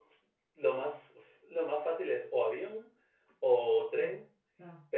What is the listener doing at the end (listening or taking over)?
listening